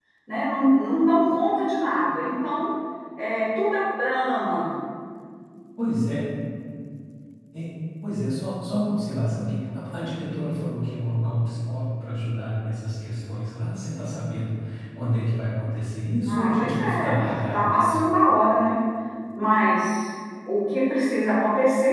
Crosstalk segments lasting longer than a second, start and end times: 16.3-18.0

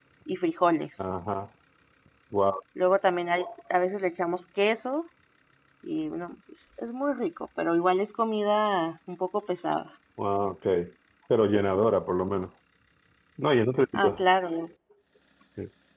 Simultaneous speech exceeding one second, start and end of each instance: none

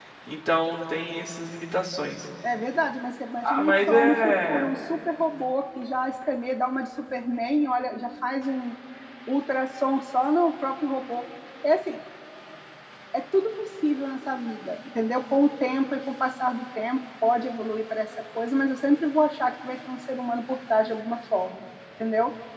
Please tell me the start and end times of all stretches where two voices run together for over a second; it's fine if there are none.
3.4-4.7

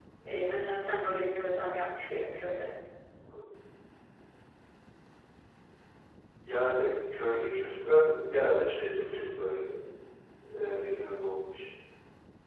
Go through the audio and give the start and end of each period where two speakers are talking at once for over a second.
none

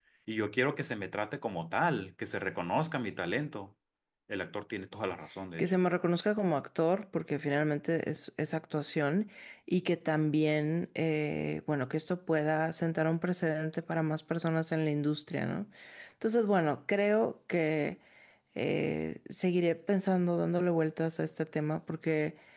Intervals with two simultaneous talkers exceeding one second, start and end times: none

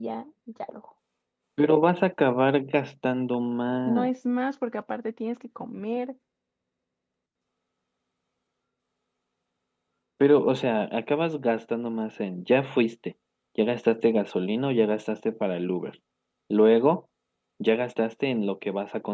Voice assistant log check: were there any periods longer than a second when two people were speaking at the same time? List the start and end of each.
none

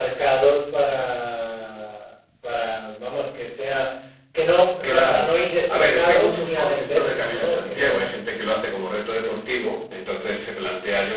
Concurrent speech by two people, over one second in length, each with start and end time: 5.7-8.1

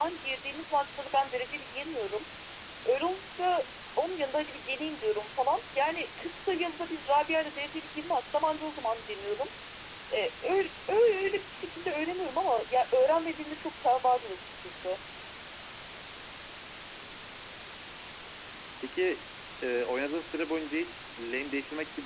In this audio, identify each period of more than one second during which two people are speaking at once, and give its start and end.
none

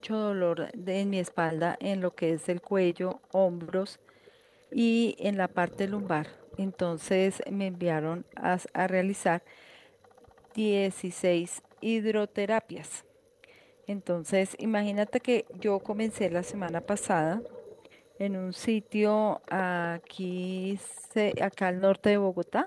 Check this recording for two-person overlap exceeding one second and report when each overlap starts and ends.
none

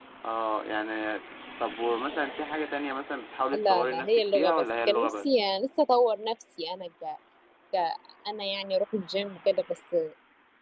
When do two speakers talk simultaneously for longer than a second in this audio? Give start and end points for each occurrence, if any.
3.5-5.3

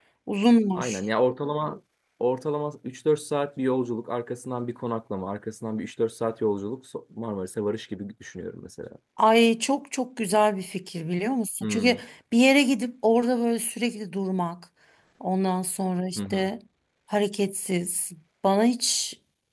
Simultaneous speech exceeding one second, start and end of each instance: none

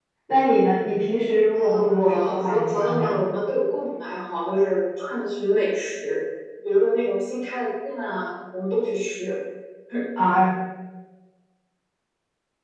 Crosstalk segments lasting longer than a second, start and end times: 1.5-3.3

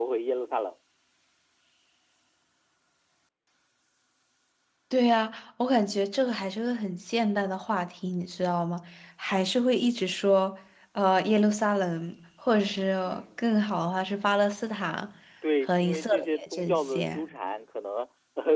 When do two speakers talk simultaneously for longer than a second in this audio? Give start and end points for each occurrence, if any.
15.6-17.2

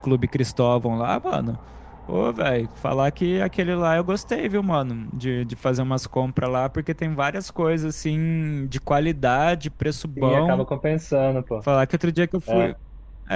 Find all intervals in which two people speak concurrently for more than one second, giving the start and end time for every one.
none

